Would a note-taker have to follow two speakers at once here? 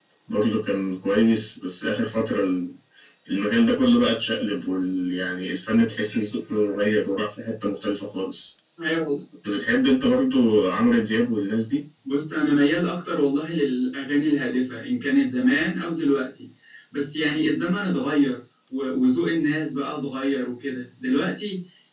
No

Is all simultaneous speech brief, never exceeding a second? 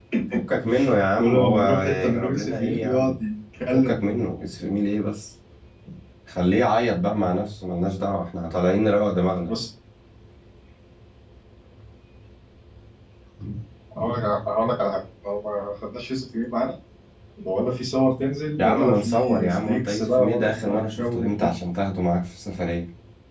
No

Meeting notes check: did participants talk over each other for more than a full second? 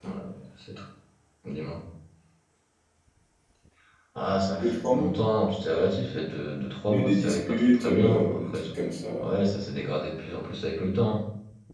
Yes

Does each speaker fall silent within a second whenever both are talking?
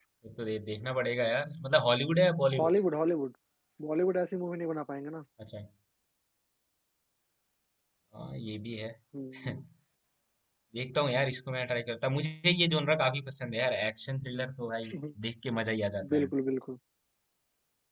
Yes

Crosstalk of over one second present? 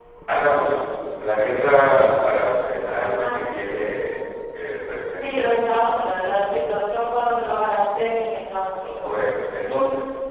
No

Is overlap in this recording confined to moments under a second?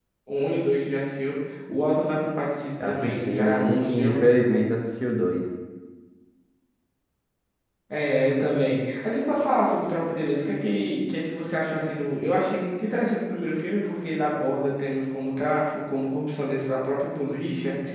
No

